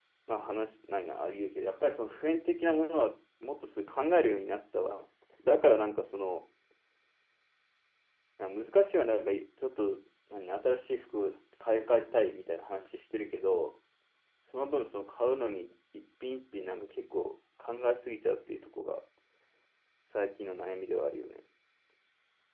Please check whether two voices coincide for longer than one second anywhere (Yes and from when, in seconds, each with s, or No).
No